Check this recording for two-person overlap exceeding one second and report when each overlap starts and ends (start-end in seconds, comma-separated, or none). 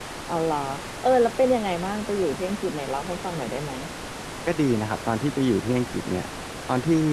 none